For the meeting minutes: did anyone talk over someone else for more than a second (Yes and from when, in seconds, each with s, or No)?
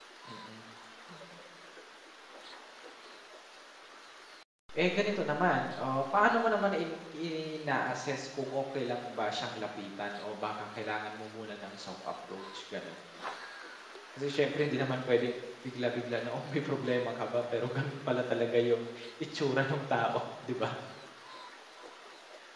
No